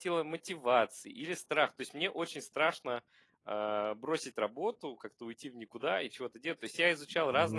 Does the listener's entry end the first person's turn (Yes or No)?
No